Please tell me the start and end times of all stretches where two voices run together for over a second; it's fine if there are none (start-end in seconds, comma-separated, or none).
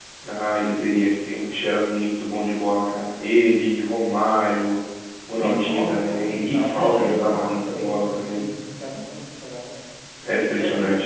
5.3-8.4